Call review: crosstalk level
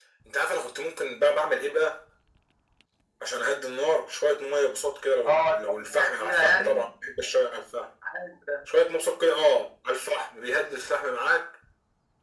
present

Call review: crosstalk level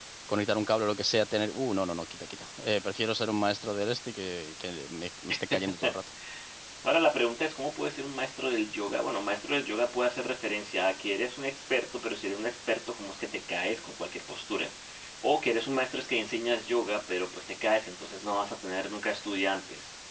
none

